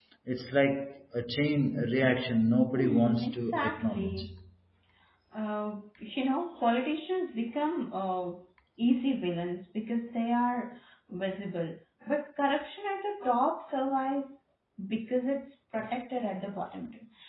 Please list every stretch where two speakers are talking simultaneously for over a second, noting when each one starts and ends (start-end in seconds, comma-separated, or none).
2.8-4.3